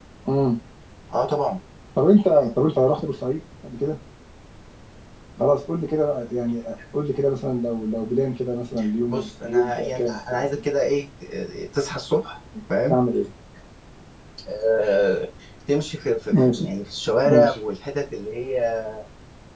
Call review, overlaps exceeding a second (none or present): present